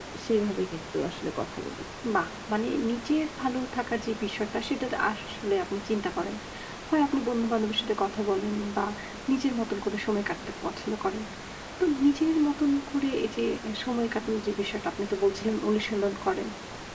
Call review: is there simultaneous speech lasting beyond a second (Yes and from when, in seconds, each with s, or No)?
No